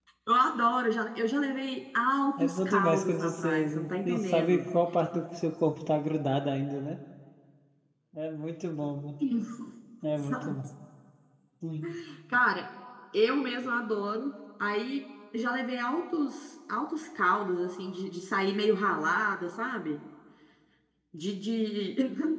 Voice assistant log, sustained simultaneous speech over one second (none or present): present